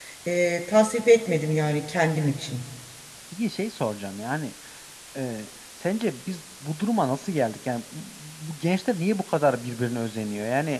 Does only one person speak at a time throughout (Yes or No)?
Yes